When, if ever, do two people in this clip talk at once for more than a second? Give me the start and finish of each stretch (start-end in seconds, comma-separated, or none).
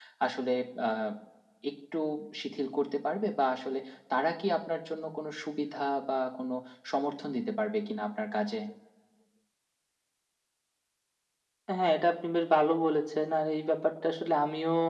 none